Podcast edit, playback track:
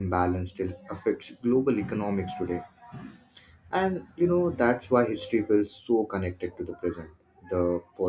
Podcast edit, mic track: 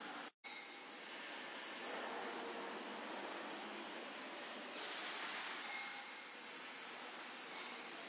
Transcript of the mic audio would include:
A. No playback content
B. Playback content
A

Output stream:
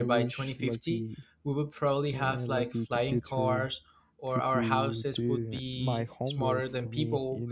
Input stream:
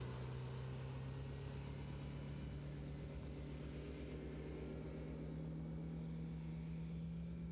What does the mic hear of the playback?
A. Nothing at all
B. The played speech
A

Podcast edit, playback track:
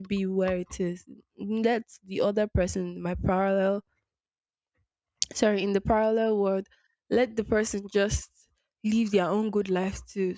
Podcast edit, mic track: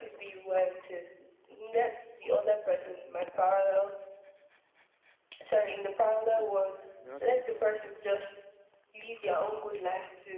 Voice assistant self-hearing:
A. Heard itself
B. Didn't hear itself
A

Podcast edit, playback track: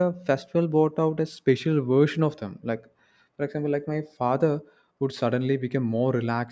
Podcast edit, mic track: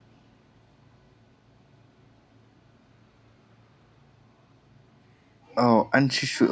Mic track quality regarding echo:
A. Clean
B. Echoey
A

